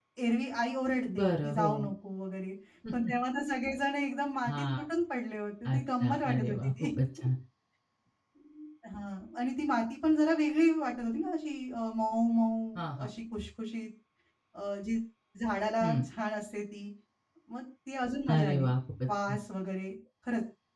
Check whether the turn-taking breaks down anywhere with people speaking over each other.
Yes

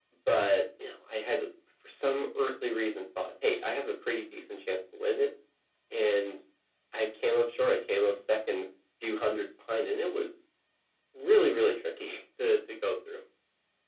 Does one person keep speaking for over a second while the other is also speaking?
No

